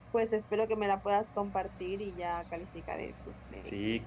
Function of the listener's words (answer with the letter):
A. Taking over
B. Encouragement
A